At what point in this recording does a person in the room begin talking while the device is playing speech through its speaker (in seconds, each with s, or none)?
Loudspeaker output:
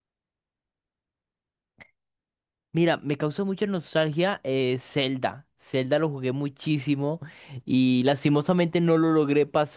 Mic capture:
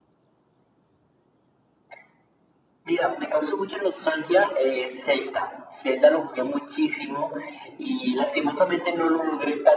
none